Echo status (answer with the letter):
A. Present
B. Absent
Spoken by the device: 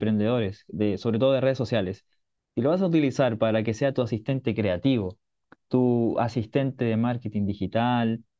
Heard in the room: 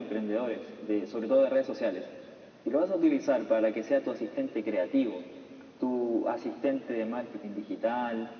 A